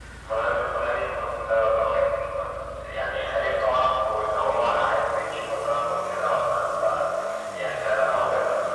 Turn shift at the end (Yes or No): No